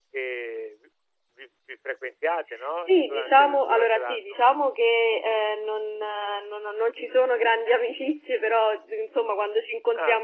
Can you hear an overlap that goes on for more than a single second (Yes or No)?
Yes